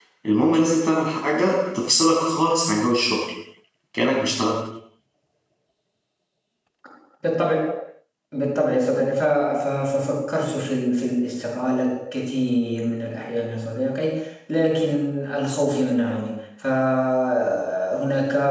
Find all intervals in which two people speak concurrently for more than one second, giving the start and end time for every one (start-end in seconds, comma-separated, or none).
none